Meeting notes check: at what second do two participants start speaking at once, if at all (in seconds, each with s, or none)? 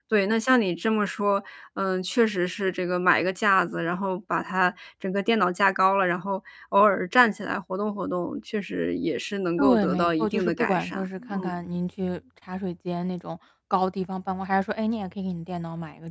9.6 s